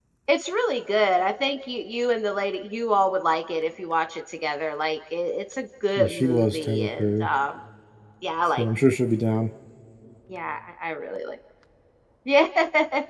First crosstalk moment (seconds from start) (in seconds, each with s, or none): 6.0 s